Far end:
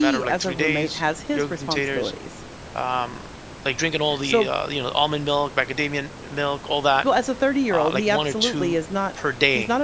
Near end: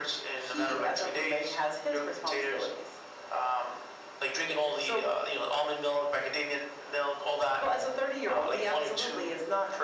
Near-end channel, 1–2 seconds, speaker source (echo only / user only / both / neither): echo only